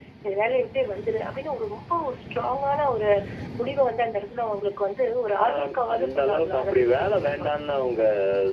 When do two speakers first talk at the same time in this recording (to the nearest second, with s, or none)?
5 s